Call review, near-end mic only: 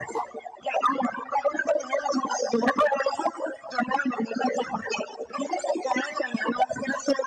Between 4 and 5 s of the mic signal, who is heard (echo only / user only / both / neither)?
echo only